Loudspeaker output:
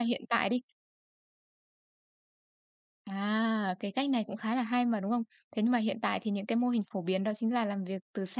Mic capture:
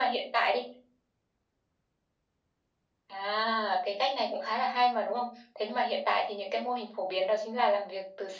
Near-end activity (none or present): none